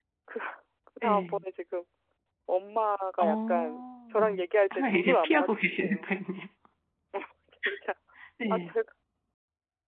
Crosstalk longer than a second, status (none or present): present